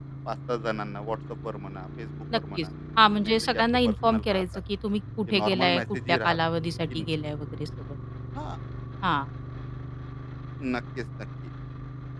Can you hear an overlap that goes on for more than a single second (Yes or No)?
Yes